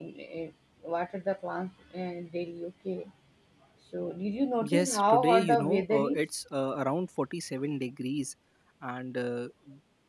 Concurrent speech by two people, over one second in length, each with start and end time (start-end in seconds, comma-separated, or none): 4.6-6.2